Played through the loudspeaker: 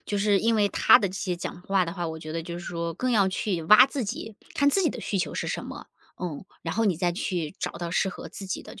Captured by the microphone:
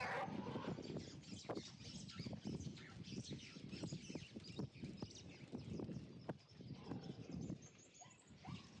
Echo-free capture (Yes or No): Yes